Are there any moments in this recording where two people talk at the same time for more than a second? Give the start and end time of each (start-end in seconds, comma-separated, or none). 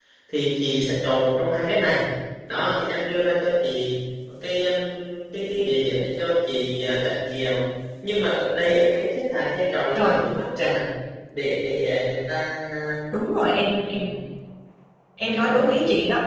none